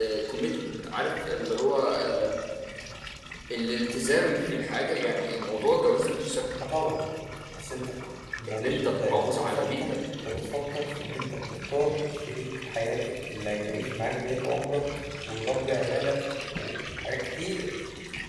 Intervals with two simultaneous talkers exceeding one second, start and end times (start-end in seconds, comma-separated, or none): 8.5-9.9